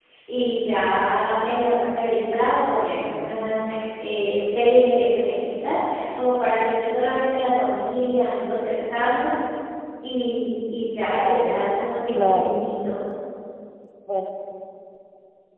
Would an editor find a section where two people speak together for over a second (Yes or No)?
No